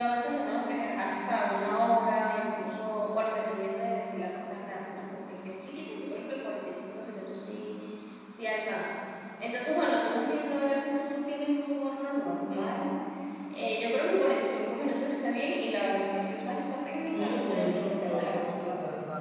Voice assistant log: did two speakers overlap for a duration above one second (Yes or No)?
Yes